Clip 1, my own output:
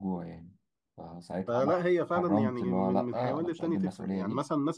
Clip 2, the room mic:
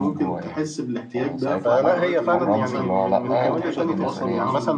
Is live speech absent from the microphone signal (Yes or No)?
No